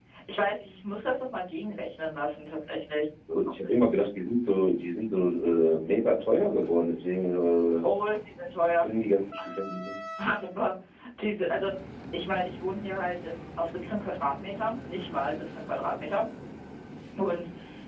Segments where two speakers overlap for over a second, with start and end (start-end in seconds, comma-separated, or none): none